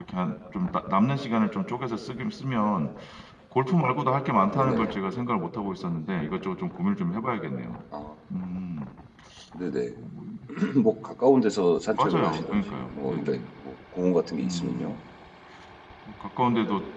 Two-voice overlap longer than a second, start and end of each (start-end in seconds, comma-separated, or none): 12.0-13.4